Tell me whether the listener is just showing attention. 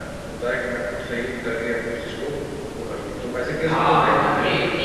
No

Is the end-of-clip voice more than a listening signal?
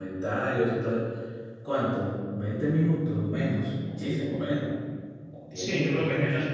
Yes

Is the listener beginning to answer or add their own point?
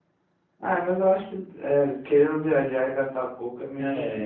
Yes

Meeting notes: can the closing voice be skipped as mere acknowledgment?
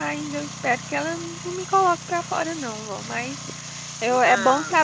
Yes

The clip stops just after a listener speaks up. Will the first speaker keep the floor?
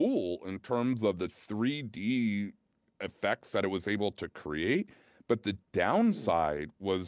Yes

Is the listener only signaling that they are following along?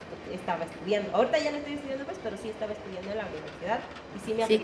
Yes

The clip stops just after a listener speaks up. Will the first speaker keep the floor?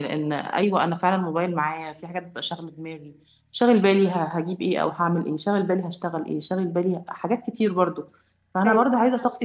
Yes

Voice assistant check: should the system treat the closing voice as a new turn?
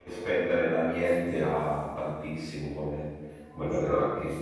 Yes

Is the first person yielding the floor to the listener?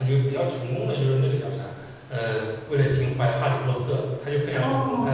Yes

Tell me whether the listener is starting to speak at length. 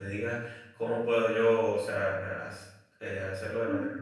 No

